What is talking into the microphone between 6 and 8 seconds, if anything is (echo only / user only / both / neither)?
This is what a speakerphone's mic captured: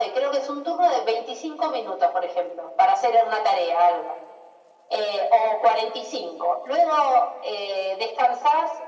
echo only